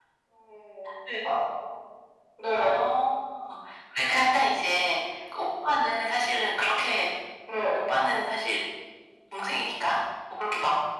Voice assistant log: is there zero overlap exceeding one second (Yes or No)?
Yes